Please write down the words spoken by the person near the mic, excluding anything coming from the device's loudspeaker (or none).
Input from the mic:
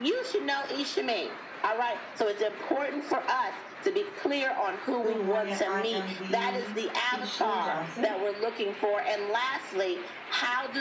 Good morning. I am the Keisha Johnson.